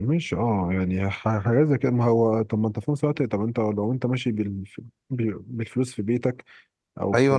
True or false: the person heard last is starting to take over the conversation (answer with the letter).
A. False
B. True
B